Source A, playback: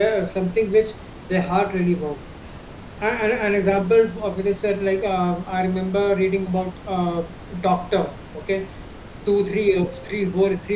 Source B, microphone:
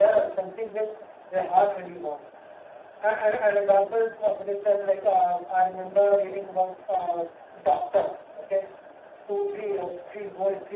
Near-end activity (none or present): none